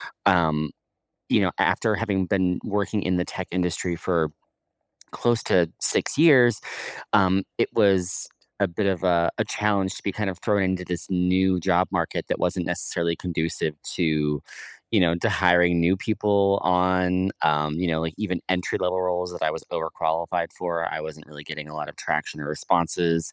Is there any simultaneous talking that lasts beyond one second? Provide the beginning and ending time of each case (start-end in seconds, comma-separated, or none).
none